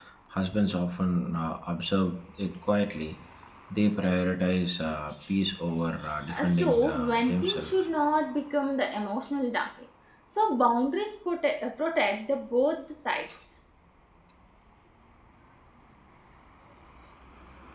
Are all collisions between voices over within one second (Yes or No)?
No